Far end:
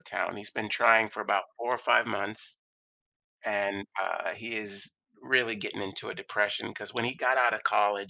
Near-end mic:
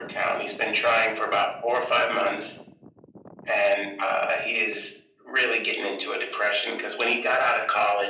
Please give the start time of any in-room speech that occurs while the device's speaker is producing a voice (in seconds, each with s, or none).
none